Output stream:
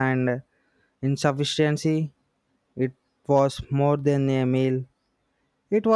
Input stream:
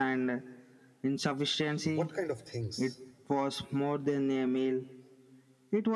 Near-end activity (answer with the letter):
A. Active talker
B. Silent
A